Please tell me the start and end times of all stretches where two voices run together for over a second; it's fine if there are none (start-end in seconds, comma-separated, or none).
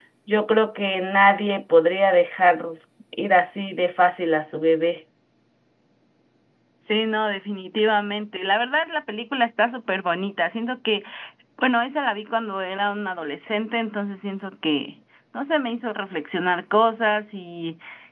none